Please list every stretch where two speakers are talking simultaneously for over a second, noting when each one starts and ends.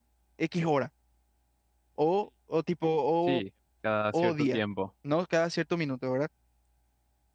none

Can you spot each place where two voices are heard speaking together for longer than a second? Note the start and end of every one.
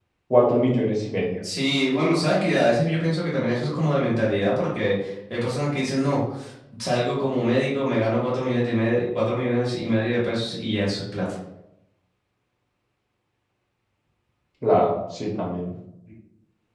none

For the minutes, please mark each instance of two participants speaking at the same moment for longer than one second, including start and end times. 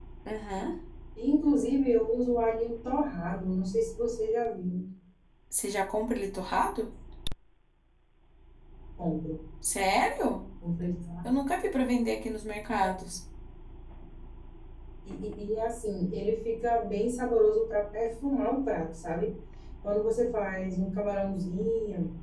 none

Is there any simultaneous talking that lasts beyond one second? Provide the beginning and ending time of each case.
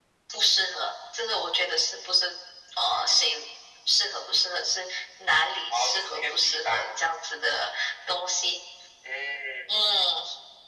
5.7-7.0

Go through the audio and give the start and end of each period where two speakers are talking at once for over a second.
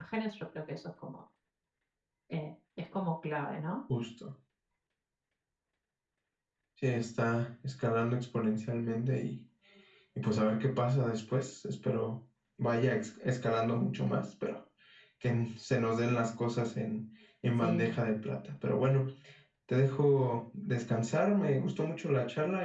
none

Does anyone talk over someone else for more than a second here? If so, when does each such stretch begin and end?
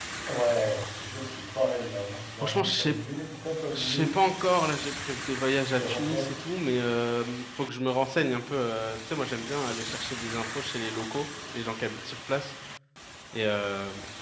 none

